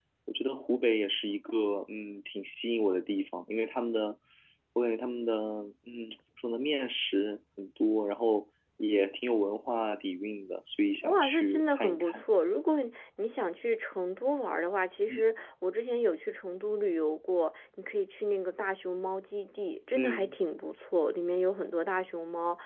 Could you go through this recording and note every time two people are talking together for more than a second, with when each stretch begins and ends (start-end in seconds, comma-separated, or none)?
11.0-12.2